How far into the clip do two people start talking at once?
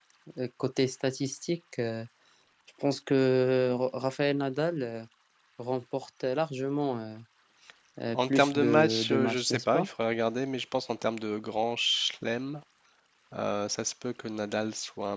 8.1 s

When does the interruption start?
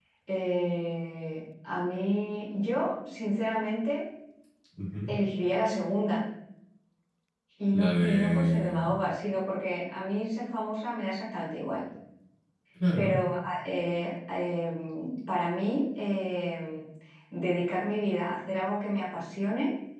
7.7 s

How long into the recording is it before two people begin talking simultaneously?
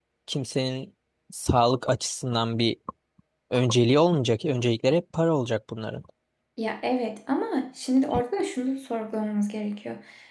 none

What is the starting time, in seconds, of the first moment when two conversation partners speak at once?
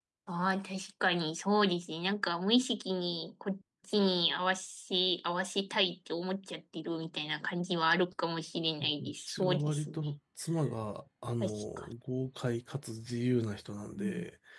8.8 s

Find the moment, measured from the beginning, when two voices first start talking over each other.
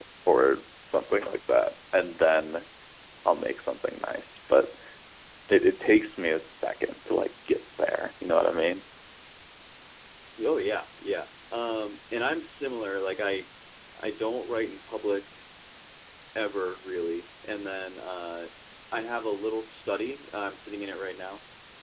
none

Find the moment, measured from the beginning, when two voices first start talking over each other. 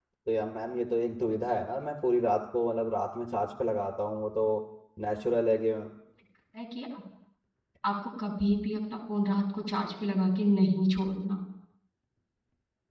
none

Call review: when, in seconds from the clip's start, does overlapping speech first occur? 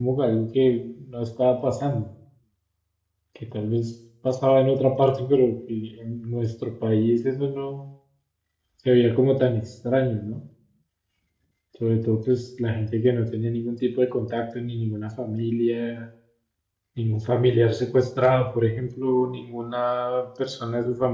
none

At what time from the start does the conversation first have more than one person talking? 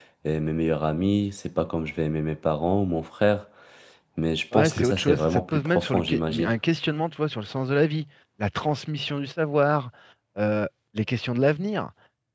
4.5 s

